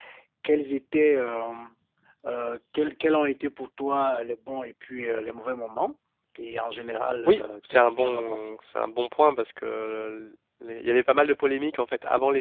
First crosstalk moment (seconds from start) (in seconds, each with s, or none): 7.2 s